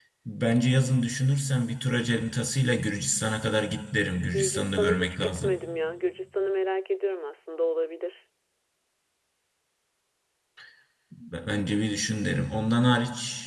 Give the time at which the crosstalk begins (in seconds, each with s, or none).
4.3 s